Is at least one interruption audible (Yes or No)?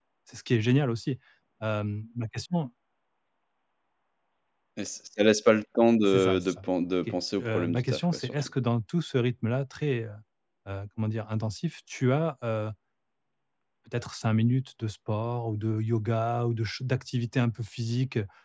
Yes